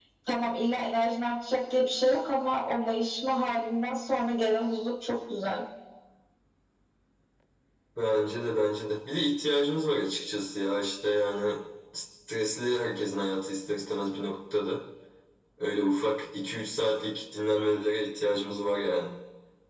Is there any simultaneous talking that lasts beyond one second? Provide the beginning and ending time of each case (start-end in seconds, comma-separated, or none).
none